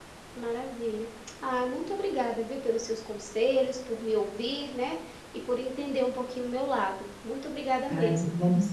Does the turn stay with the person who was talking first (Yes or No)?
No